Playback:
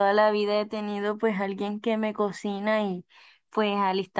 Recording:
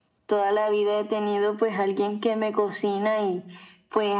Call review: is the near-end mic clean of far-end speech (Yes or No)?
No